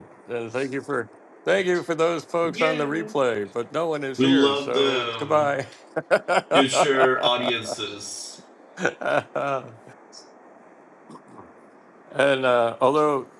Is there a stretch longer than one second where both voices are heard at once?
Yes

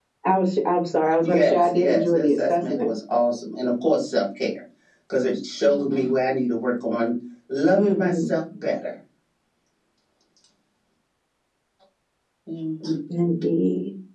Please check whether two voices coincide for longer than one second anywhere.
Yes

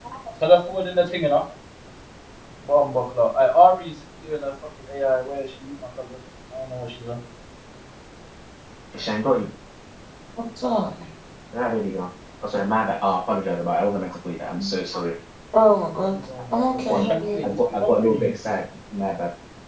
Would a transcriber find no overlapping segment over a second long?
No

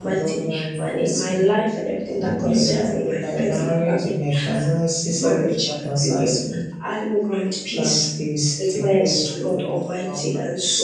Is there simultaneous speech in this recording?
Yes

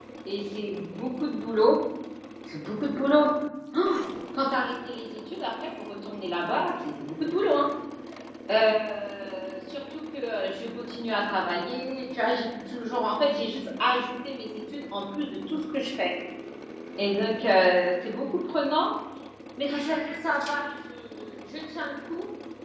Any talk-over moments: No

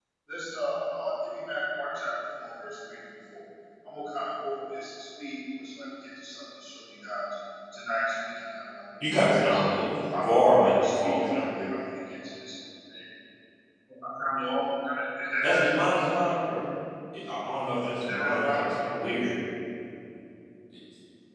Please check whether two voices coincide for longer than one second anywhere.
Yes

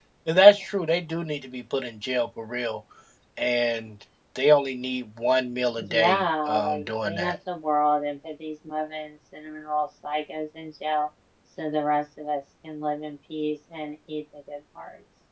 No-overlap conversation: No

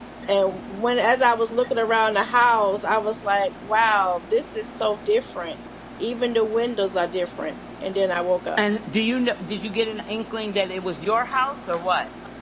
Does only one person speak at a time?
Yes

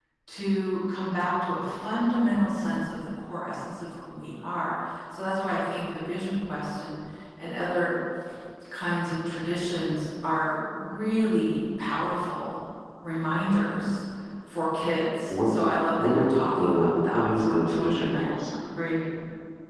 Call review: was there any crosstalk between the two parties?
Yes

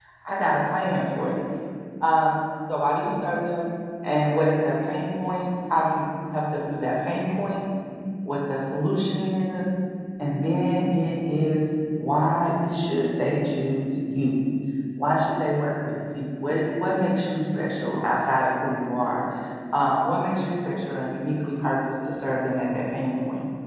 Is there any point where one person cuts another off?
No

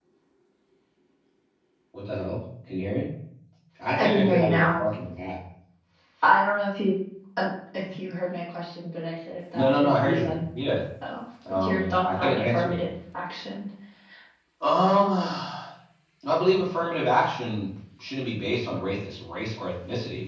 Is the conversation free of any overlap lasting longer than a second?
No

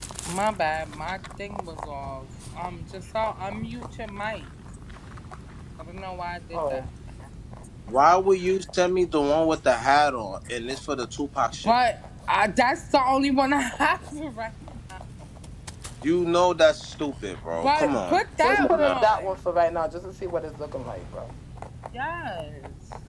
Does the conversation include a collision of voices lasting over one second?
Yes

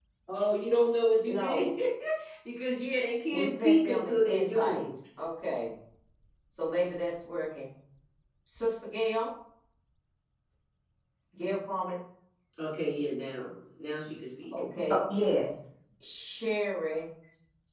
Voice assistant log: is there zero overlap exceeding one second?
No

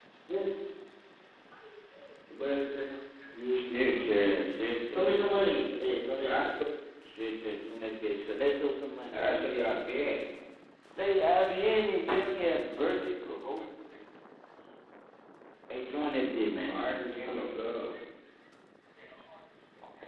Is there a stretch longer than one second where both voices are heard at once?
No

